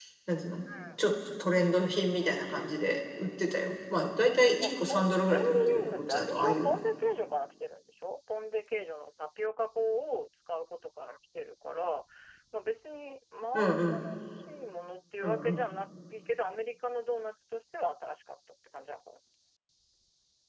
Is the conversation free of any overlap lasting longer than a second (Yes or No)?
No